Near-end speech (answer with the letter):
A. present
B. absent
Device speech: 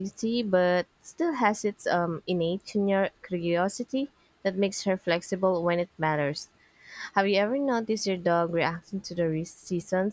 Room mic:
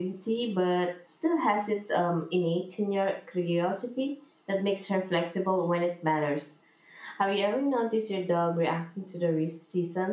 B